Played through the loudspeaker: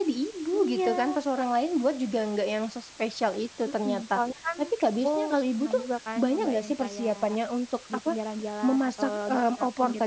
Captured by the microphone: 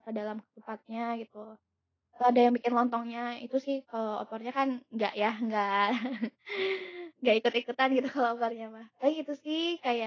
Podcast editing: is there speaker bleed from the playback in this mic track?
No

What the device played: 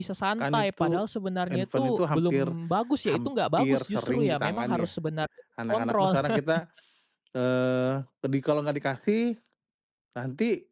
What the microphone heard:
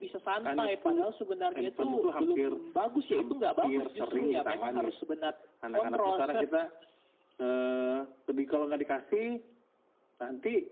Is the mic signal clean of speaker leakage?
No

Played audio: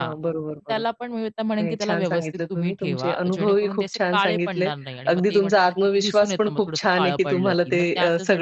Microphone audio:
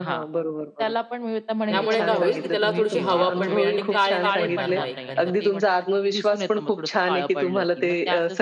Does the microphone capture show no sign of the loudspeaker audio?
No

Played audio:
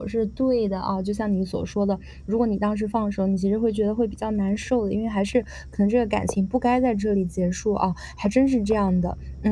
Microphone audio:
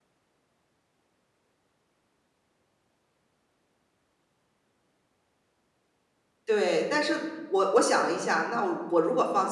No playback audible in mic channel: Yes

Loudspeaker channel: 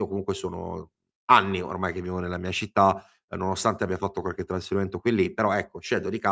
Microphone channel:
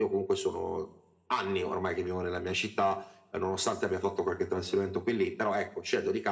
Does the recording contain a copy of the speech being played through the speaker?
Yes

